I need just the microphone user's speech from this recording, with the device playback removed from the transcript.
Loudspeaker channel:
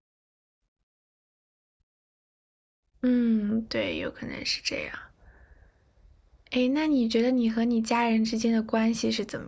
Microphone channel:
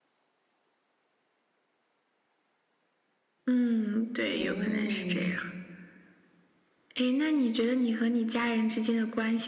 嗯，

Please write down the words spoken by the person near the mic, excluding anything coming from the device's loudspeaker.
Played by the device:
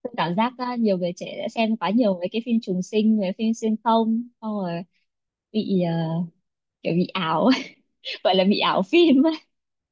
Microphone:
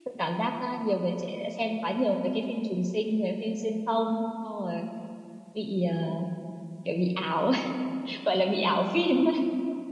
none

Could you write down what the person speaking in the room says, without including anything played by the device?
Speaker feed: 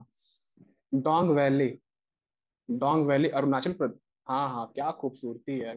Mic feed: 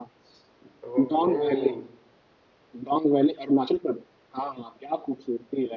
ओहो

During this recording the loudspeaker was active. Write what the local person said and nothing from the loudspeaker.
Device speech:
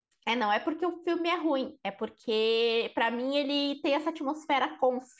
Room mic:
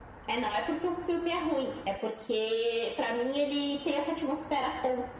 none

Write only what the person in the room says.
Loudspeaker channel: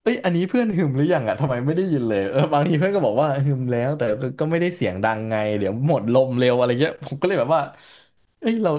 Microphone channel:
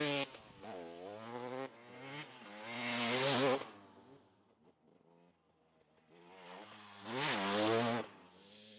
none

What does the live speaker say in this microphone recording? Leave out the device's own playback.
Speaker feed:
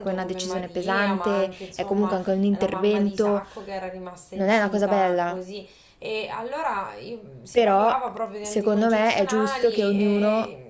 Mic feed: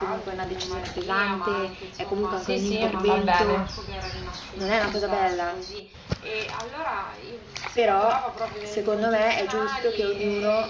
Sì, sì, va bene.

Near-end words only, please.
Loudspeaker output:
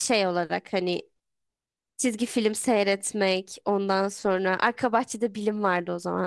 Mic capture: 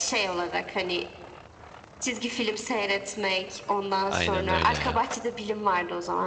Aynen öyle ya.

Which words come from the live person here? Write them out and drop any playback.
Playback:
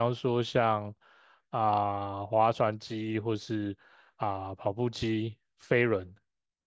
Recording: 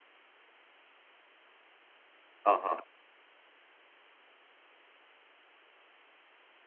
啊哈，

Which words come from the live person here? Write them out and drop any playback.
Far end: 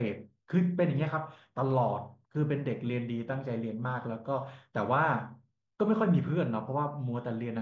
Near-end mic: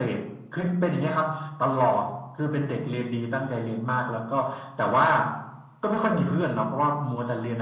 none

